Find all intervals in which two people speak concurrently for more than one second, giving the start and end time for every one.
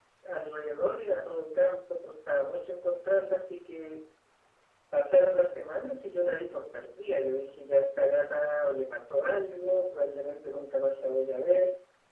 none

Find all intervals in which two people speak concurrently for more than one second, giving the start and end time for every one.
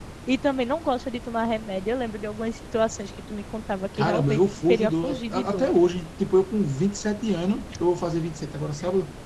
4.0-5.7

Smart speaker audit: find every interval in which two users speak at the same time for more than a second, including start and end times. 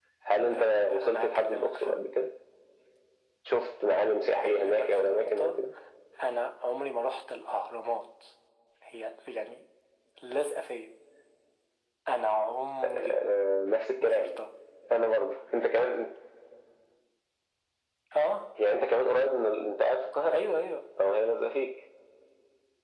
0.5-2.0, 4.3-5.5

